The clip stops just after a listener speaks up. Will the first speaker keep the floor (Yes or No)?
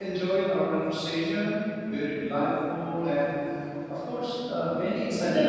No